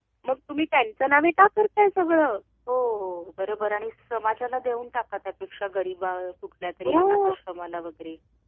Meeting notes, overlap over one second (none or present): none